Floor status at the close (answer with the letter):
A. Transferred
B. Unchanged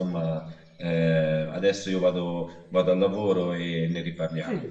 A